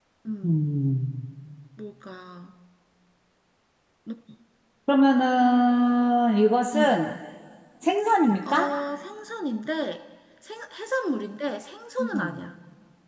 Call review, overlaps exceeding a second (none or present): none